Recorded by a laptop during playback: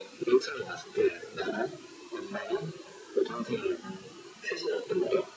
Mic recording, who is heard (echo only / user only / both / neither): echo only